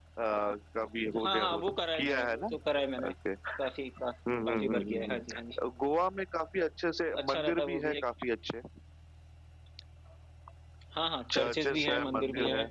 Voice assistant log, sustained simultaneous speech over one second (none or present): present